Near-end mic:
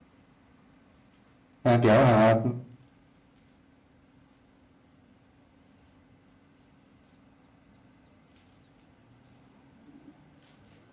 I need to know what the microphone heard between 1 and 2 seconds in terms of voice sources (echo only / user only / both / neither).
user only